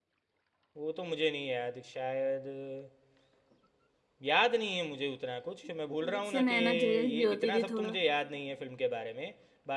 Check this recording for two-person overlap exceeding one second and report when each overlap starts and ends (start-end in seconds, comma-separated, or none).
6.1-8.0